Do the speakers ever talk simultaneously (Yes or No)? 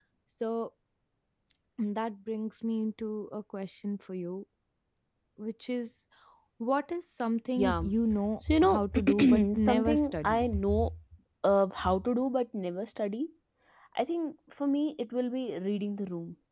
Yes